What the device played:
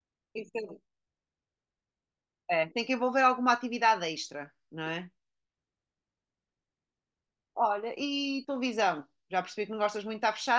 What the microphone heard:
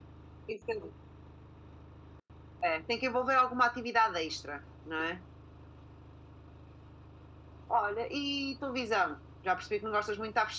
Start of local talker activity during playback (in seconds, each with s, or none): none